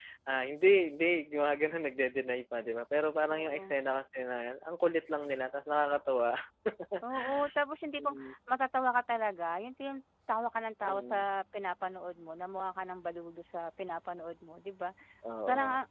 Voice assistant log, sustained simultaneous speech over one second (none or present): none